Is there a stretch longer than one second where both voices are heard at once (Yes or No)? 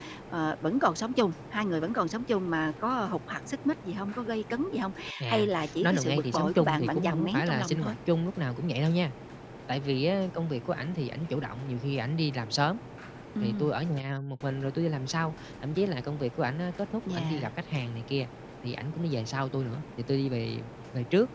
Yes